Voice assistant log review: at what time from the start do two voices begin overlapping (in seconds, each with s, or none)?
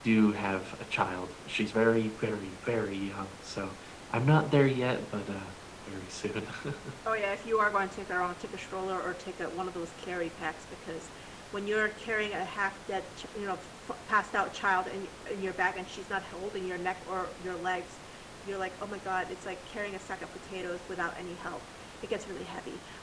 none